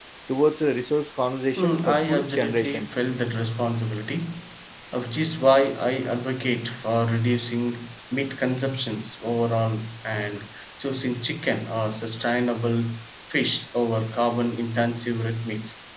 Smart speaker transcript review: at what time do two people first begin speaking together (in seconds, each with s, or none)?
1.6 s